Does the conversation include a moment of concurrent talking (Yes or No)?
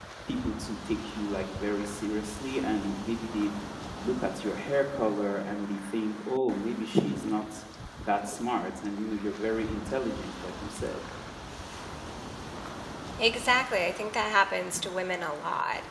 No